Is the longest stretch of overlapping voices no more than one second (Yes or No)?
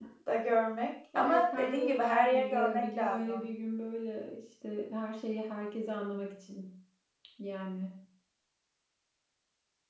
No